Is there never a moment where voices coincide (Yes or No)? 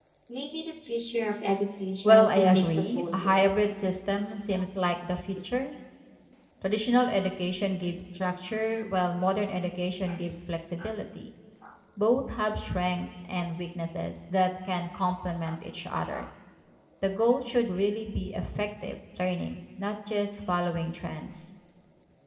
No